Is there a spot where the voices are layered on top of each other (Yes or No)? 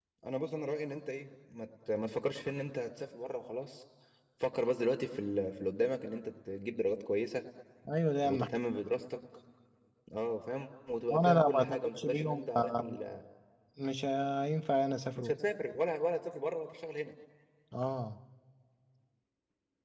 Yes